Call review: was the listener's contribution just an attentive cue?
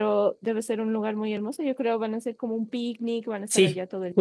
No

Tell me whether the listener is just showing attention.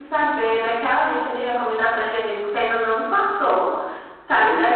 No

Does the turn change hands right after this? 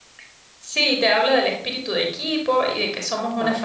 No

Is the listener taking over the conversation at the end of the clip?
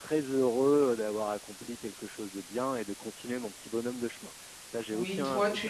Yes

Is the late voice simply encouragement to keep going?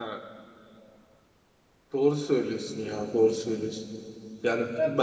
Yes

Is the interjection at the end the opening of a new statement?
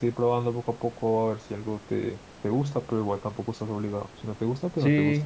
Yes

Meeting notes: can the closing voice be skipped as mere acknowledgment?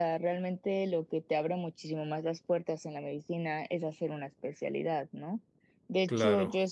Yes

